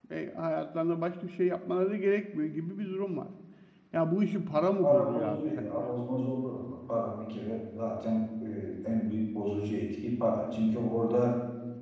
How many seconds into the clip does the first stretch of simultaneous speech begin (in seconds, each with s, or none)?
4.6 s